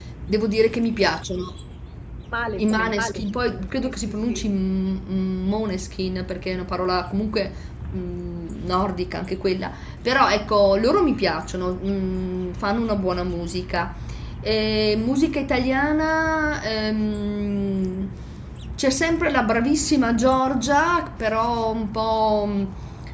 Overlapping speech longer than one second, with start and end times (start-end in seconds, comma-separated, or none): 2.6-4.3